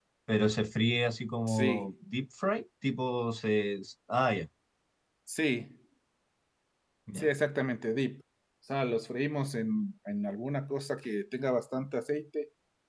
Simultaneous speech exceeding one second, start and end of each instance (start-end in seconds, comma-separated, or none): none